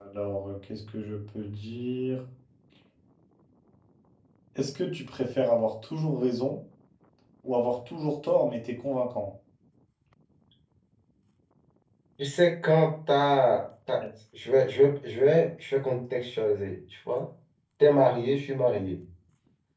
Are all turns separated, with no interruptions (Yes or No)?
Yes